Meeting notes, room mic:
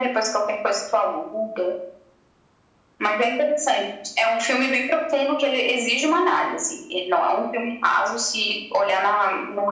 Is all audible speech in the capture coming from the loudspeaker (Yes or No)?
Yes